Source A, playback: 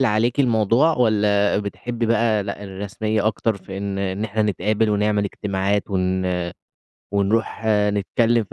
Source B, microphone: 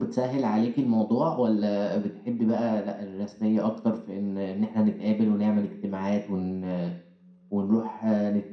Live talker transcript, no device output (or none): none